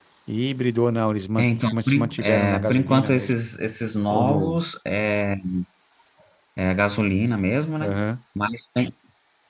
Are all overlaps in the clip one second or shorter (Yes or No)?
No